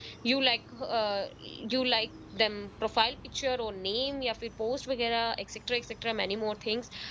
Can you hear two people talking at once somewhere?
No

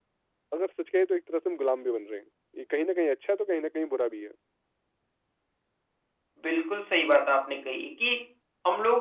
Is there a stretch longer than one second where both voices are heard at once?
No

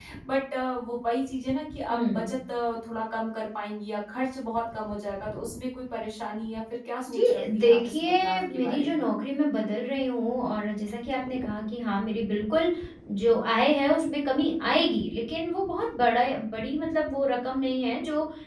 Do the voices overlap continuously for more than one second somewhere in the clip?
Yes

